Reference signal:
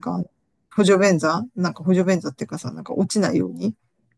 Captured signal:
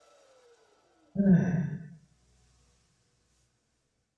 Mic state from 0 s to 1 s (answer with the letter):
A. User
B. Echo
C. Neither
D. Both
C